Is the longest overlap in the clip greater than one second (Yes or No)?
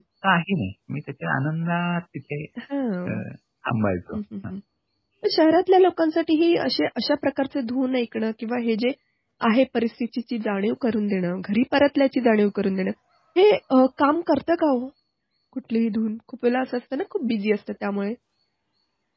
No